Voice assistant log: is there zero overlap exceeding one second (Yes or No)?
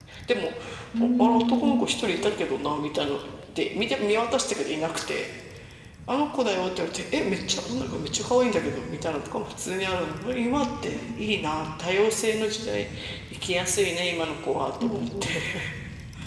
No